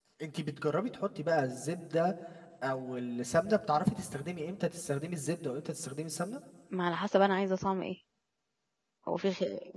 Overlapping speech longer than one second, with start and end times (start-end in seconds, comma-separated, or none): none